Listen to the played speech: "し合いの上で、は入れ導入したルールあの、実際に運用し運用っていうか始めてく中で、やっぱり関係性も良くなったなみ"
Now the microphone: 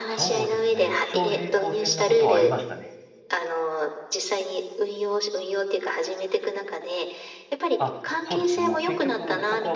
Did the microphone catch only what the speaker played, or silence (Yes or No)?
No